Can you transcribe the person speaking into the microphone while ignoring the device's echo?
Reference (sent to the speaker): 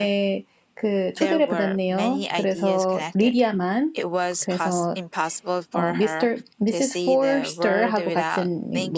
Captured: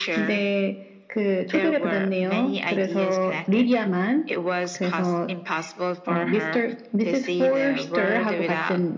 none

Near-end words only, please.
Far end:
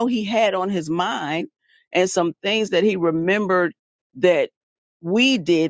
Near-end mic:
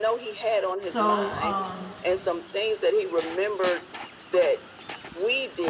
so um,

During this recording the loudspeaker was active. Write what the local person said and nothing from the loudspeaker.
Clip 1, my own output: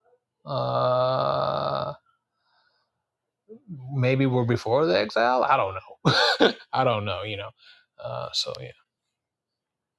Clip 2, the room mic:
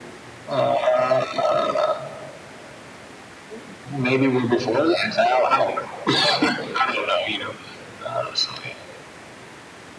none

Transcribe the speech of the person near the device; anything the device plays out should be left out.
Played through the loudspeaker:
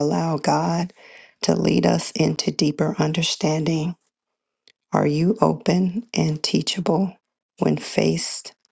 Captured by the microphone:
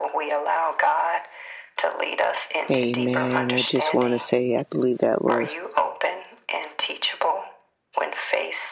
Amen. I just want to say, I believe that was

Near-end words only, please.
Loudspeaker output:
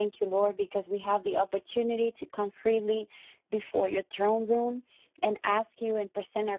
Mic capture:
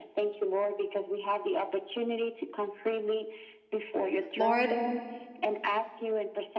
Lord,

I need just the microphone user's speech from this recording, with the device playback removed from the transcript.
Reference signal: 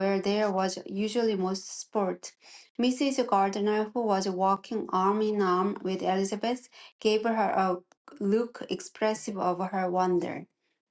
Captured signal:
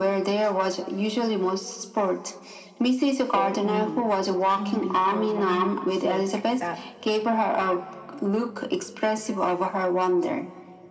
for me. It can't be for my sake that

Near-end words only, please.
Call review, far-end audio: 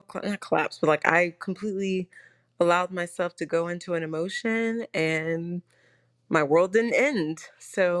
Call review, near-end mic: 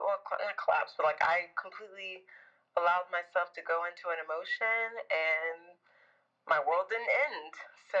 none

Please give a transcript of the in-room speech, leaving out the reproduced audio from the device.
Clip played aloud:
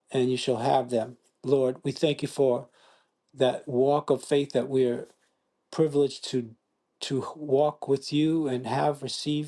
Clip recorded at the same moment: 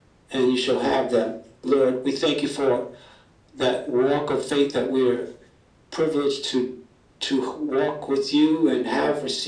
none

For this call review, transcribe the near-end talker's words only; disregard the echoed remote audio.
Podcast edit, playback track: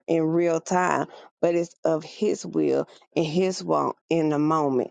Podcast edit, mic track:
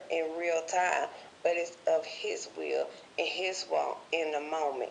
none

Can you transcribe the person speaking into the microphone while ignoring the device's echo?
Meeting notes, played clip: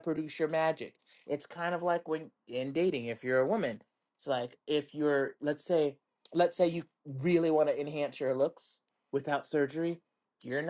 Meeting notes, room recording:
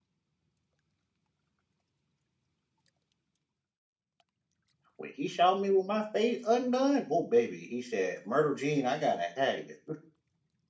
when he saw me with my face undone, oh baby, he said, "Myrtle Jean, I gotta have you."

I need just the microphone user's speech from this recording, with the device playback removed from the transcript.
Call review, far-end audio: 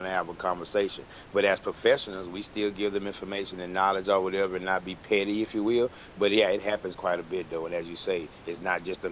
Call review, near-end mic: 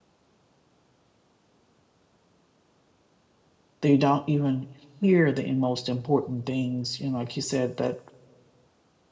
they don't even hear the most important things. You know, like you said, that

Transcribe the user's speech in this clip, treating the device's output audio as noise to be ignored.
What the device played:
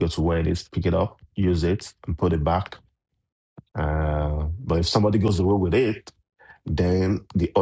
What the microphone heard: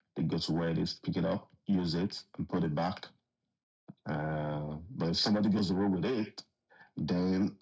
none

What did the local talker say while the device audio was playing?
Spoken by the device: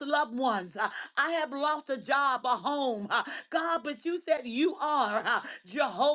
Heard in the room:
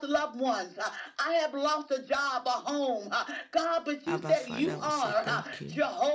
Abba Father, we say thank you.

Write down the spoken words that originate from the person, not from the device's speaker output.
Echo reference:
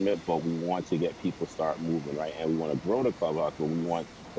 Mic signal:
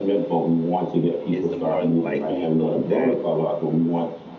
is the more likelihood that

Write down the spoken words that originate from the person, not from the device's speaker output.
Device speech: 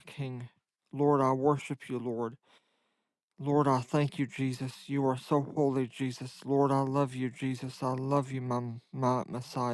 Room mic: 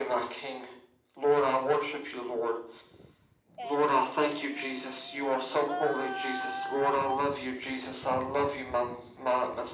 and we lift our voice

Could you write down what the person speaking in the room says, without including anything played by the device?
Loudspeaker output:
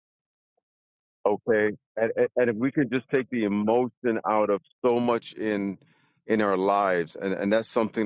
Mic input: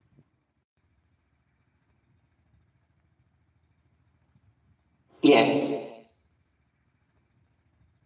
Yes.

